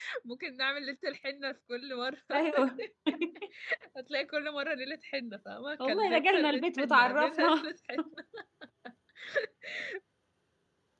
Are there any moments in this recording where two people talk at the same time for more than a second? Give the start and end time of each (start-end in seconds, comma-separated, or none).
5.8-7.7